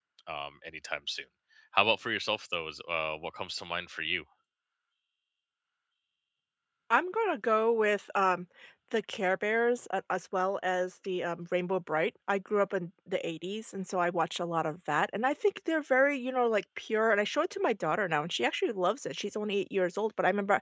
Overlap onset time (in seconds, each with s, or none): none